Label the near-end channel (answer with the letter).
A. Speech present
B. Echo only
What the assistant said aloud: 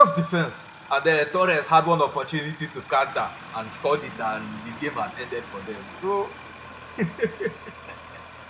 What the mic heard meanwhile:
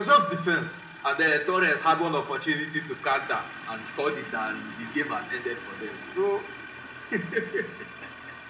B